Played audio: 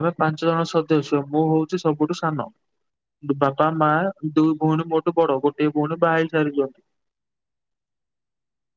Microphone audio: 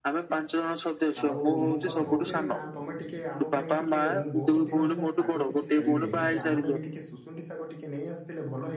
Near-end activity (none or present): present